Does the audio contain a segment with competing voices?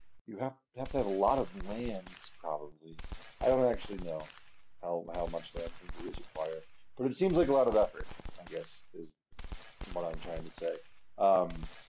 No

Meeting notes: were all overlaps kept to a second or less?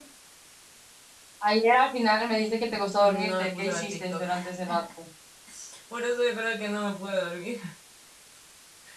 No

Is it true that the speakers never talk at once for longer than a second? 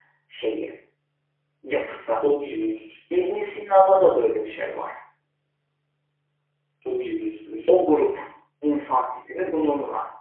Yes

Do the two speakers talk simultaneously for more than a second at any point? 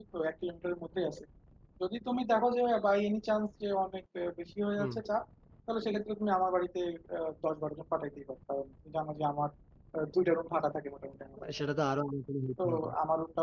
No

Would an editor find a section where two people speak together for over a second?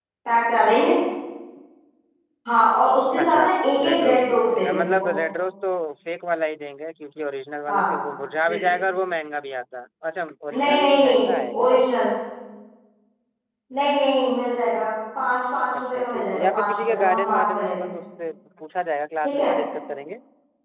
Yes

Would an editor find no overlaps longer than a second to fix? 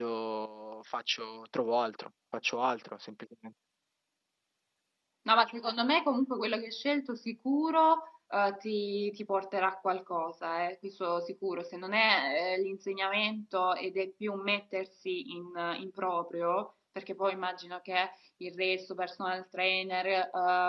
Yes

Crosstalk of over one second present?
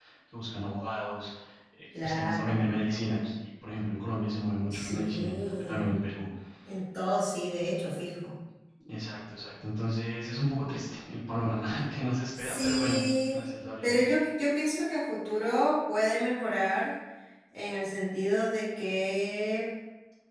Yes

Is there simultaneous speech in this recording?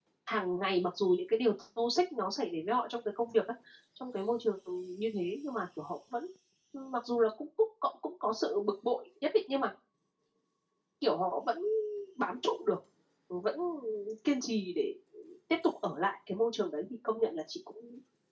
No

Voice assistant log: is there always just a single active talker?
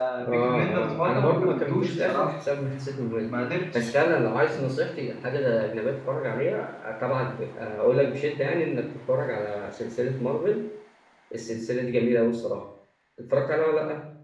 No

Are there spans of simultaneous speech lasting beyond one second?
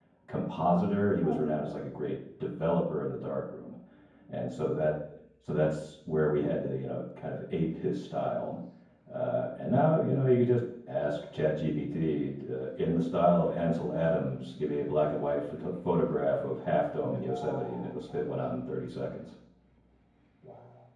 Yes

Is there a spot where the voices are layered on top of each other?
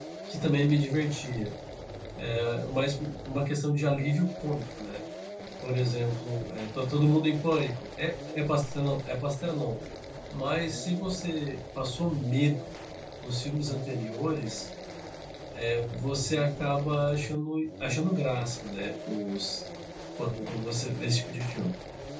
No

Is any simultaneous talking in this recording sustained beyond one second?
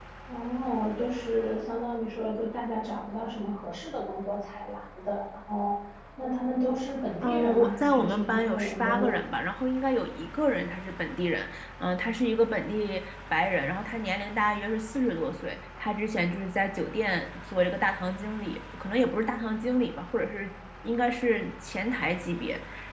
Yes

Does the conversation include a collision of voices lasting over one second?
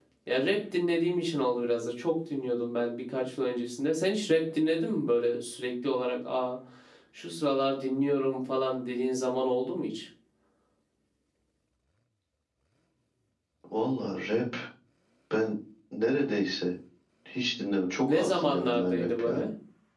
Yes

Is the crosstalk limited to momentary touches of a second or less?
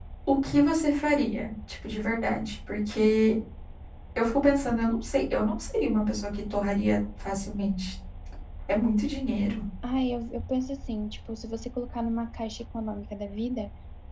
Yes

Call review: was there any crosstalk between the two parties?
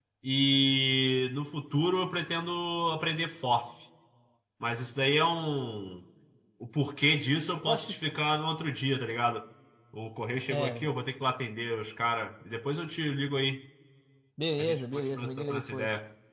Yes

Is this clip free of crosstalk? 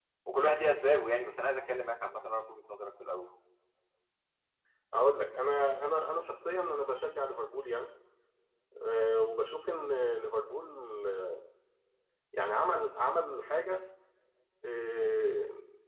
Yes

